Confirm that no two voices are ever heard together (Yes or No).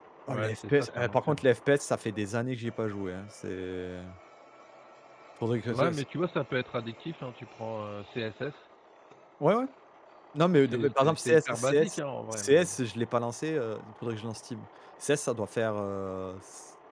No